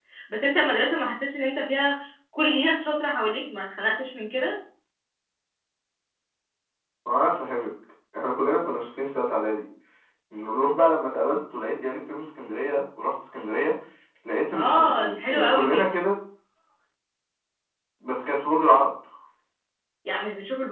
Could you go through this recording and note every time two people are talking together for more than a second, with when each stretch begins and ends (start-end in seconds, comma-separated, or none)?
14.6-15.8